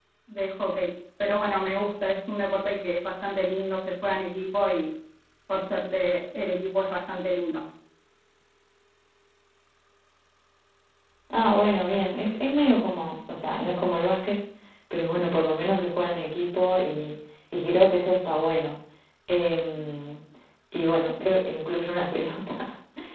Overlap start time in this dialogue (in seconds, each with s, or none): none